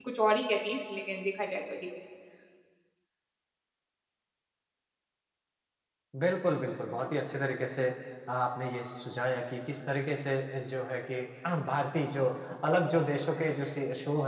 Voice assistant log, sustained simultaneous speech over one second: none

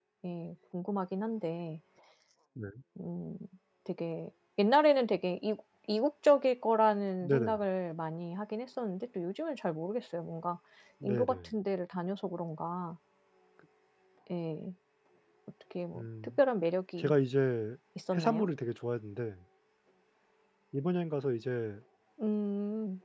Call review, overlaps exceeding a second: none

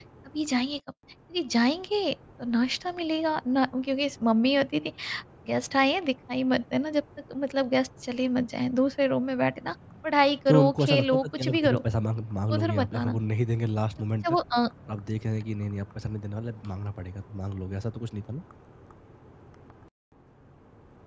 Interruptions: present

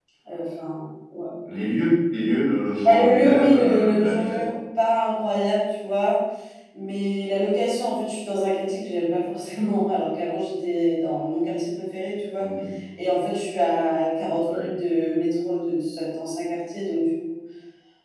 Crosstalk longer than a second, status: present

